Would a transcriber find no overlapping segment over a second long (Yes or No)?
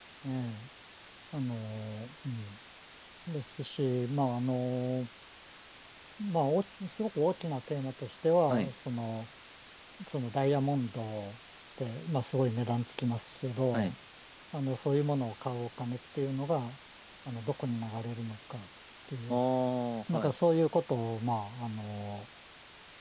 Yes